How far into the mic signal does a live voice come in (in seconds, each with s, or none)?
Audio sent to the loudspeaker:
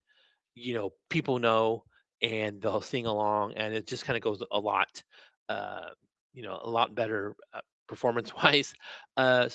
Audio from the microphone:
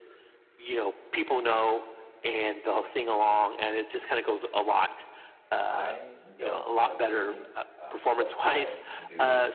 5.7 s